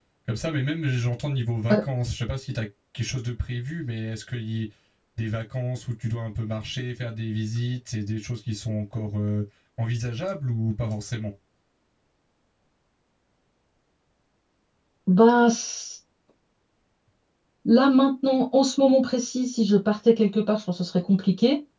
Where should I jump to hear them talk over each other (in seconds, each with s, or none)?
none